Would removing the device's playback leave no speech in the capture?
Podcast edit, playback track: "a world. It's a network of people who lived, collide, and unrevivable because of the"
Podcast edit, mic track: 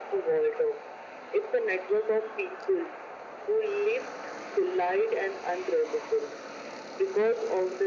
Yes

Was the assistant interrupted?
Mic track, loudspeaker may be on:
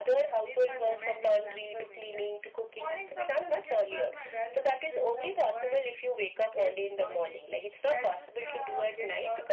No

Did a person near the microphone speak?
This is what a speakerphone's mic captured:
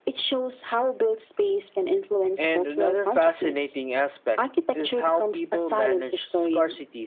No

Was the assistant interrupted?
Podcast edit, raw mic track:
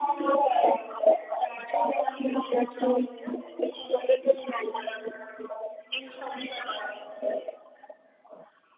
No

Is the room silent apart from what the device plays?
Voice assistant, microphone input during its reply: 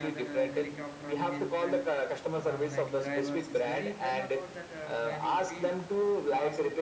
No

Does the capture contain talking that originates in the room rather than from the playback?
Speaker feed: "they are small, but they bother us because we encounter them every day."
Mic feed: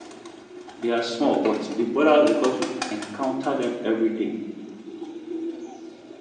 No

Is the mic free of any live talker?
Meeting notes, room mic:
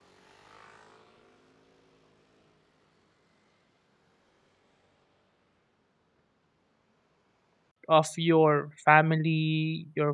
No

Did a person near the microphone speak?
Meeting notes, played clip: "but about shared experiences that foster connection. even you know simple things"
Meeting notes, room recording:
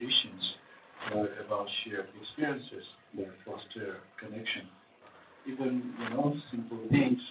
No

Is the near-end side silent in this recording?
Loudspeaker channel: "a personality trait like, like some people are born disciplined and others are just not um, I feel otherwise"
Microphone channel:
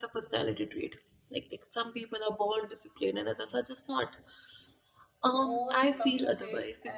No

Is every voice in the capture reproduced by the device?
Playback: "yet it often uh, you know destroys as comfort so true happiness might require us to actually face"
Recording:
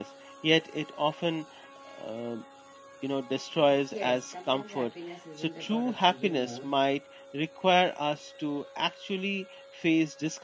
No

